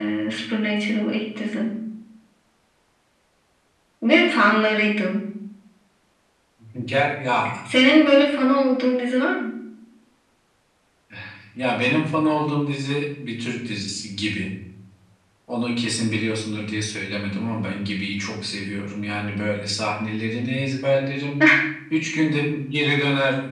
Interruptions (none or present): none